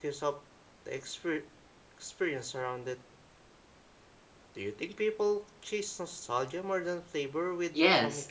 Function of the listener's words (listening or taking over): taking over